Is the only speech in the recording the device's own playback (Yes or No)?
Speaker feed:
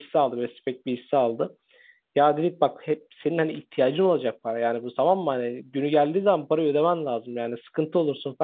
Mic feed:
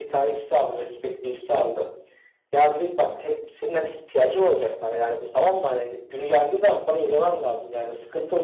Yes